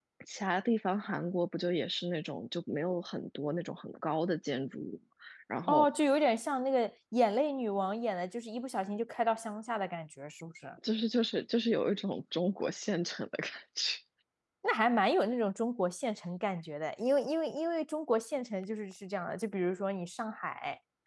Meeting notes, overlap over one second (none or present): none